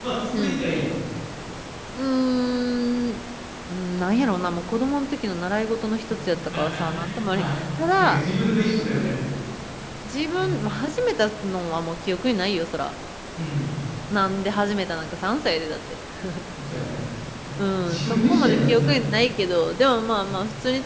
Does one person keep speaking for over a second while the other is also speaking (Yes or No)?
Yes